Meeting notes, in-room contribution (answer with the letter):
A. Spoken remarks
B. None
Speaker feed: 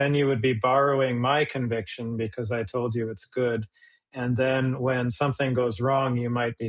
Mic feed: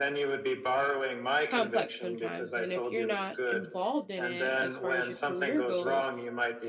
A